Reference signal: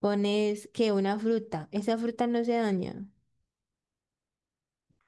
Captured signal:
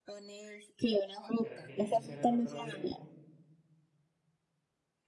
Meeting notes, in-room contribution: present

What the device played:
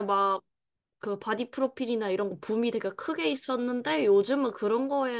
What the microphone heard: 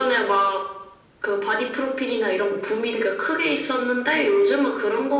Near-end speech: none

